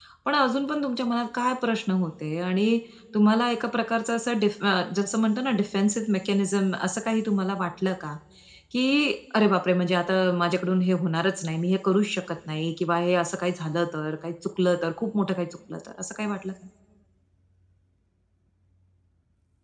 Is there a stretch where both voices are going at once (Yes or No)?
No